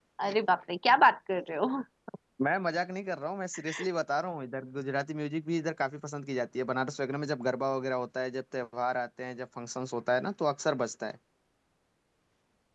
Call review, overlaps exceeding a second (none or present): none